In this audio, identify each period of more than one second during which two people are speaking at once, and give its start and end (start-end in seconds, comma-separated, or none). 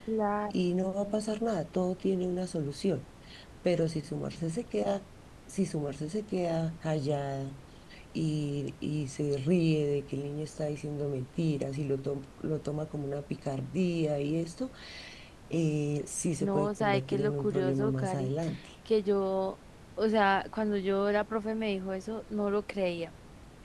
16.4-18.3